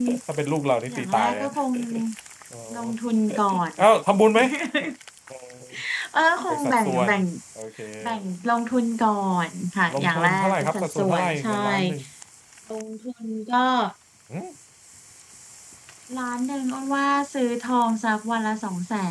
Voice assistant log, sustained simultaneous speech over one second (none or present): present